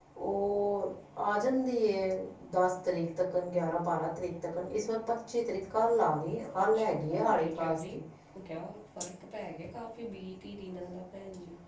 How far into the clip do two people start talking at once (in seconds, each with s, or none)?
6.7 s